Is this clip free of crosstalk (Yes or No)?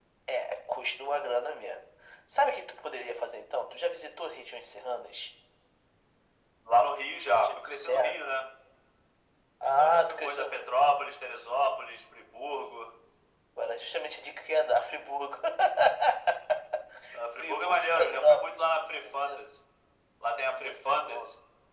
No